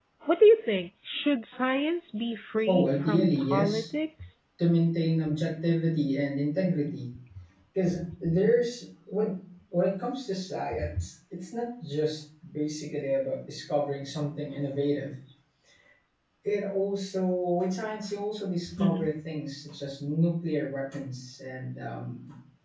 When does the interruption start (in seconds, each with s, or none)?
2.7 s